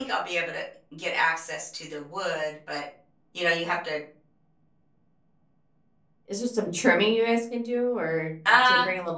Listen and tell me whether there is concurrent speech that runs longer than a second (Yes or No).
No